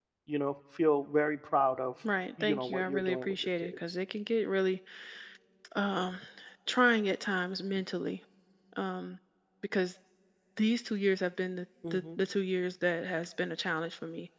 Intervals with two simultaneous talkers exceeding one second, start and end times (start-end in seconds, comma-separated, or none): 2.4-3.8